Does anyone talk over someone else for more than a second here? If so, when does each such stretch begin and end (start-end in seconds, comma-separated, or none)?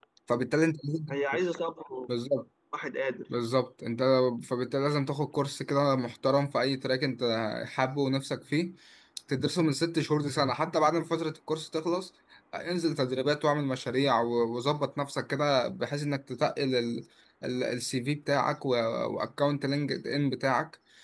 none